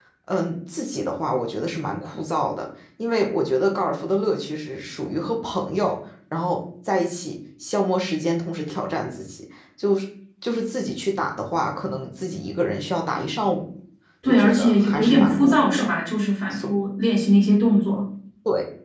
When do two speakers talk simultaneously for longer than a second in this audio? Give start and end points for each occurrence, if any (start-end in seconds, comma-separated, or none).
14.2-15.9